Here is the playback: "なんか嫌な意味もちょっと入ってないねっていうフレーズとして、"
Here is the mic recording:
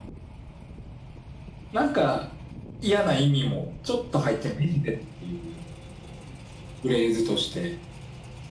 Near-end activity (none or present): none